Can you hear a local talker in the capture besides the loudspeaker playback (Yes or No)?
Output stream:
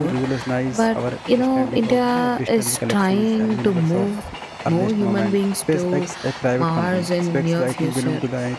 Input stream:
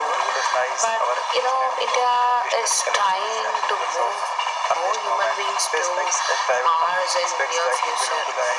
No